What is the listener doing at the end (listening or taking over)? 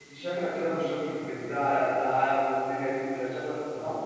taking over